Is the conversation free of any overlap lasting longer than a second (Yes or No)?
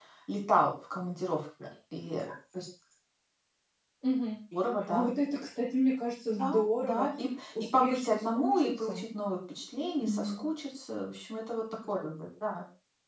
No